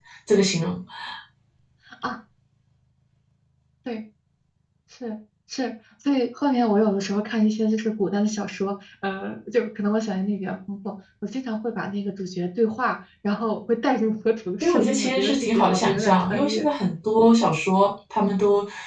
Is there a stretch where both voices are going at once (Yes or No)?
Yes